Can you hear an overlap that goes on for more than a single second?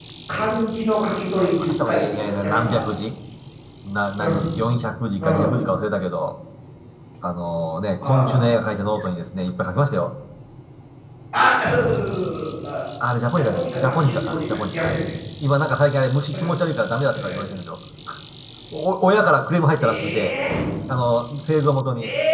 Yes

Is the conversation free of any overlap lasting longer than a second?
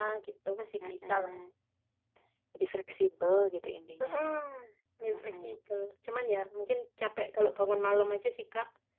Yes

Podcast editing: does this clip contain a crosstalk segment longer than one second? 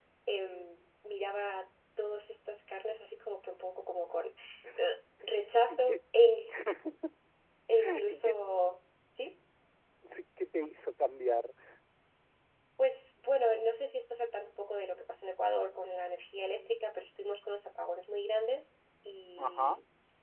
No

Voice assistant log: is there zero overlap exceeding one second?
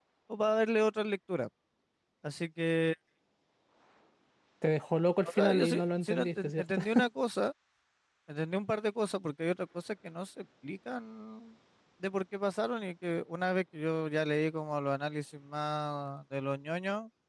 No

